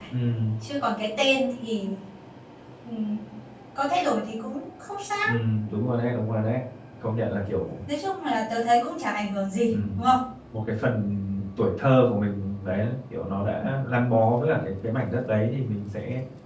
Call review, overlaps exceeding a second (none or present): none